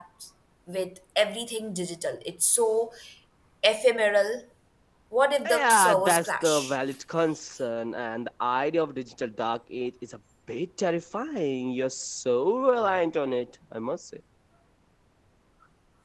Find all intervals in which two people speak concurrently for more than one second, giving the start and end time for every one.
5.5-6.8

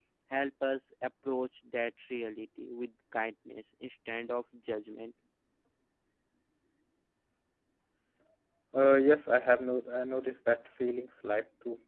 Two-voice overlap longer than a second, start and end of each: none

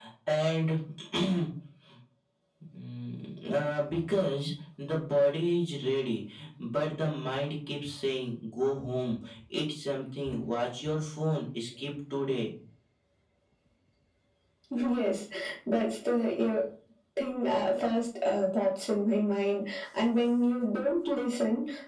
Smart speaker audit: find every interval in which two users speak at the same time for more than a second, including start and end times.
none

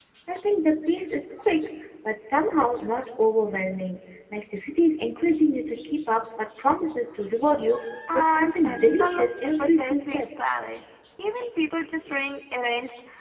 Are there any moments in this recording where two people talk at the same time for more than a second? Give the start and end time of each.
8.1-10.5

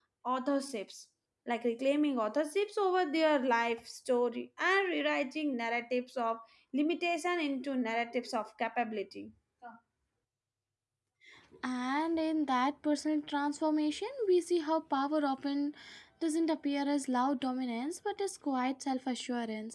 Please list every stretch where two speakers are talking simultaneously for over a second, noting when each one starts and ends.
none

